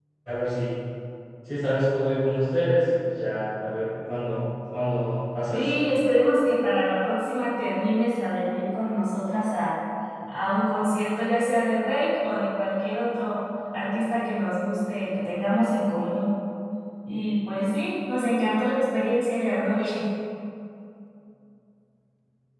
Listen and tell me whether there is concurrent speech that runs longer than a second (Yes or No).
No